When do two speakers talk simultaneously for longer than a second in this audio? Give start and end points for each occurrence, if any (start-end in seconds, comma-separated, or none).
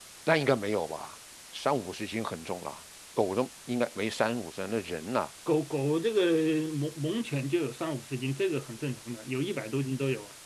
none